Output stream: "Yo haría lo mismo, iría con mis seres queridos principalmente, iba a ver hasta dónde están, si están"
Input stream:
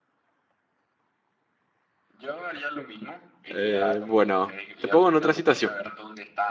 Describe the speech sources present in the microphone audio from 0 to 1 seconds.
neither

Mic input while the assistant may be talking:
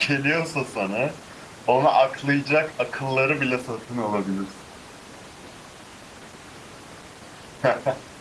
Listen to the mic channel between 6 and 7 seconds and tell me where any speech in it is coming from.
neither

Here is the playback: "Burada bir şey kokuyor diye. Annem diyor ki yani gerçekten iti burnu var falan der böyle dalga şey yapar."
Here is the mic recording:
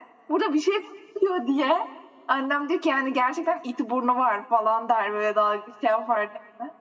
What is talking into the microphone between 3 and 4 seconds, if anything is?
echo only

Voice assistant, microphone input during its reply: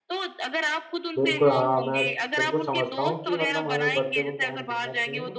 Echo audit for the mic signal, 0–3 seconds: both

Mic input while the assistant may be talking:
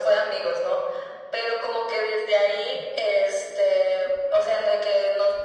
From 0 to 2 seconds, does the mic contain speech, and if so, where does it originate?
echo only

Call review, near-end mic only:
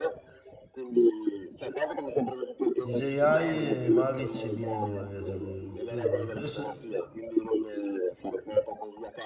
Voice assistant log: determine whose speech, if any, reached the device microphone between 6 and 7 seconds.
both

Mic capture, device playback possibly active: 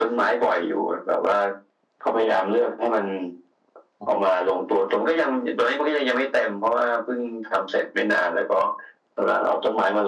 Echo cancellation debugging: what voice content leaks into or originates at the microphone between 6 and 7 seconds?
echo only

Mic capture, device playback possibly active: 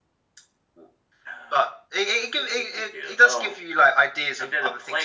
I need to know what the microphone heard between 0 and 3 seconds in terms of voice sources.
echo only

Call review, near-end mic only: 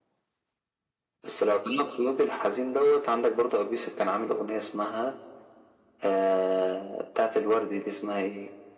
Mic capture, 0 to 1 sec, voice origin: neither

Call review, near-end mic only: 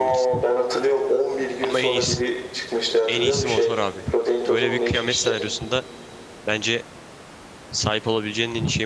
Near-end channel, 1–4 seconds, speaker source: both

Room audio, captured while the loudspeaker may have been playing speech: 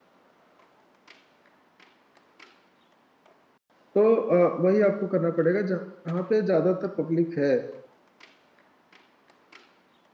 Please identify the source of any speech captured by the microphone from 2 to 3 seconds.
neither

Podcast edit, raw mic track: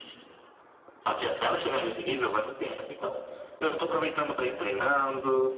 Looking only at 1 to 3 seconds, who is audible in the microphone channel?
echo only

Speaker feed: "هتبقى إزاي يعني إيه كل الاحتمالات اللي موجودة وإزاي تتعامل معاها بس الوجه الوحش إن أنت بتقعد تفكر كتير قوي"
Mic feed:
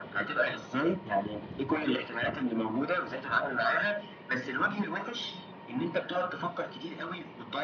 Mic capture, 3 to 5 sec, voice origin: echo only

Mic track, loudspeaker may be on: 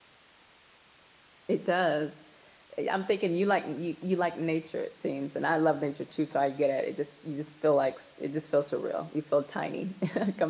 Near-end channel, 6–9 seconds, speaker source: user only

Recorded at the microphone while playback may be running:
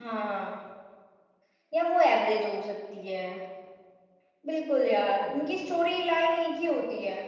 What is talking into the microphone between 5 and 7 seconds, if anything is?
user only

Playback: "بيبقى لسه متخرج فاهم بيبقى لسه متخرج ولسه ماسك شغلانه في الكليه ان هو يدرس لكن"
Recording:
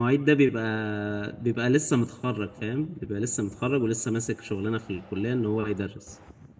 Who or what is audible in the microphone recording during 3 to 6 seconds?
echo only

